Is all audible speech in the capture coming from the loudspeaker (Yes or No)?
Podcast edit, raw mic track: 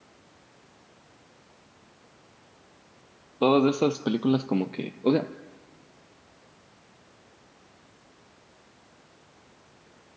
No